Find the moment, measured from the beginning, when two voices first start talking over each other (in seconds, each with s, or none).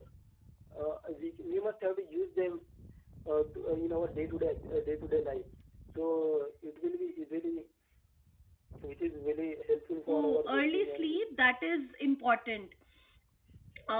10.1 s